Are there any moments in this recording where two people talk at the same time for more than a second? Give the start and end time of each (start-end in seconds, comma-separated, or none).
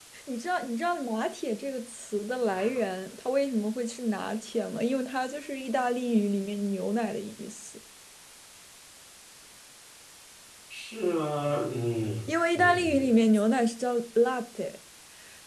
none